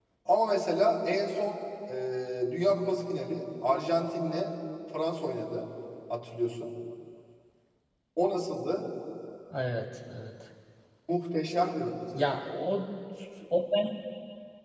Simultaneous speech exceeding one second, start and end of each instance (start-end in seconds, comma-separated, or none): none